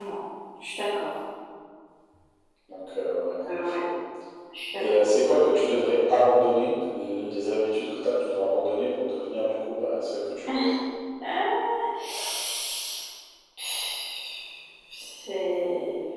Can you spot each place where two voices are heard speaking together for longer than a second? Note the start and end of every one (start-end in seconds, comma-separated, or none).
none